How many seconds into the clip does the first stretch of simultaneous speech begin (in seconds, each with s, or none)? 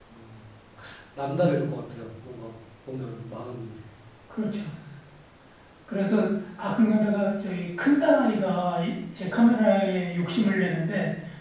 none